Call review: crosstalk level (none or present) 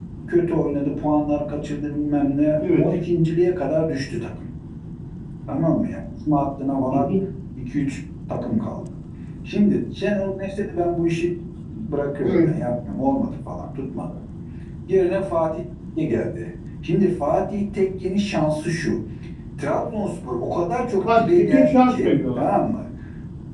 present